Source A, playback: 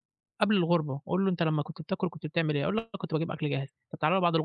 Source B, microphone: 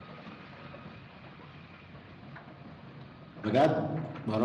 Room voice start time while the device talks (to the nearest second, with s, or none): 3 s